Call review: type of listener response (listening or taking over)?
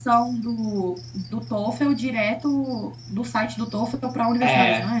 taking over